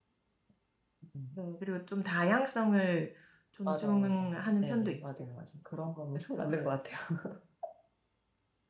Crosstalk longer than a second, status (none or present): present